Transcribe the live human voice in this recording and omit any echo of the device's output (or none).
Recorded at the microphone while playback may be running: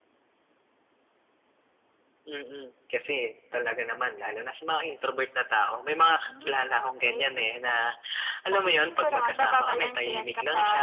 none